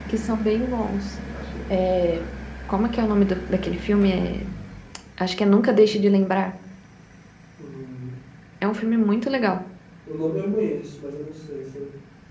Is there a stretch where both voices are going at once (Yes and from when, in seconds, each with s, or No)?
No